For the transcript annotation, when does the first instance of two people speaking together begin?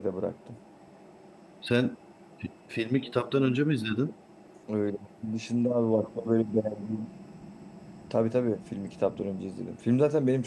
none

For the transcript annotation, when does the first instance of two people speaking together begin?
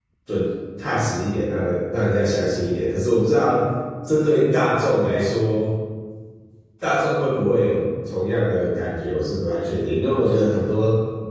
none

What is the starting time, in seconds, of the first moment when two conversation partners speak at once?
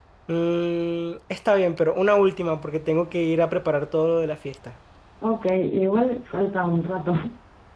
none

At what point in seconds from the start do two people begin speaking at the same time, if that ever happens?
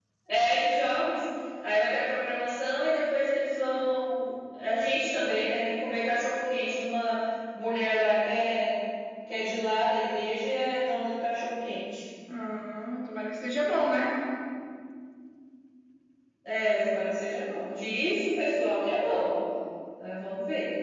none

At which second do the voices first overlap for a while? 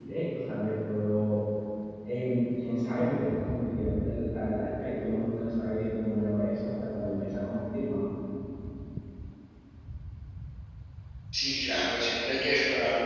none

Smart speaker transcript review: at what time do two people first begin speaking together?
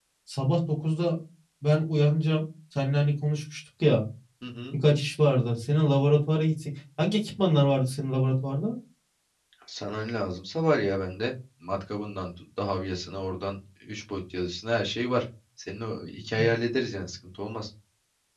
none

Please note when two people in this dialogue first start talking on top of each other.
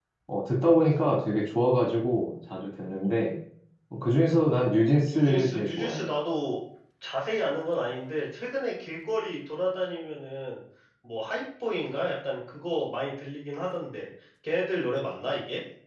4.7 s

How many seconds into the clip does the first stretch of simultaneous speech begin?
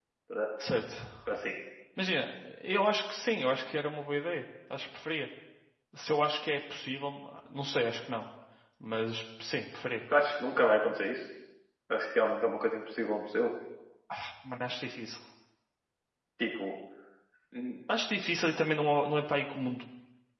none

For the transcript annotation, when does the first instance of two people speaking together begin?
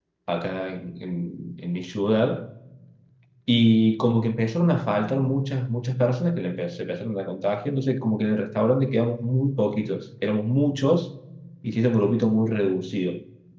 none

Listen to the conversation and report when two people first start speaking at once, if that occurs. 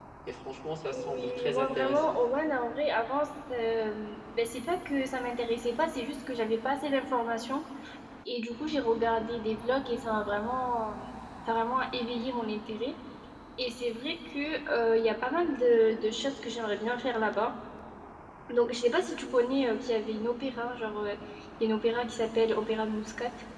0.9 s

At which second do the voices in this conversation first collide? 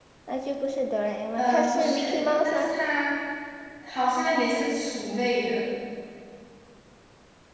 1.3 s

